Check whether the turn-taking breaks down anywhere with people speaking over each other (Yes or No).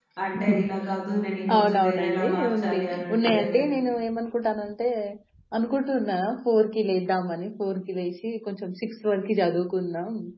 Yes